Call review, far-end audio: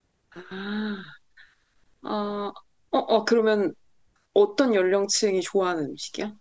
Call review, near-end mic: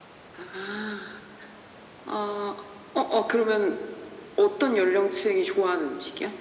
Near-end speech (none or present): none